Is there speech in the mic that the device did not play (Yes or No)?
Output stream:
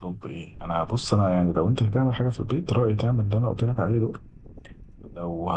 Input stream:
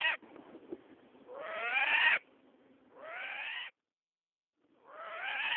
No